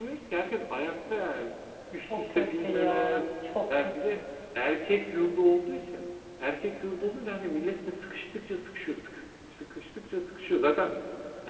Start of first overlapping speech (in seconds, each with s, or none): 2.0 s